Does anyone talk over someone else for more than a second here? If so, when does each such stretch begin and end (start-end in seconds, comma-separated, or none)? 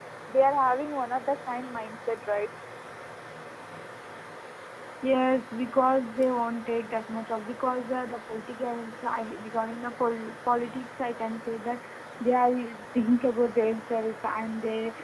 none